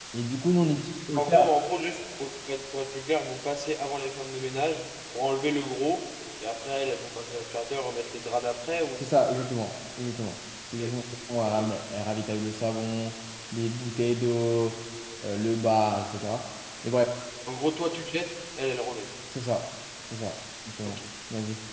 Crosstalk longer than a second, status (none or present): none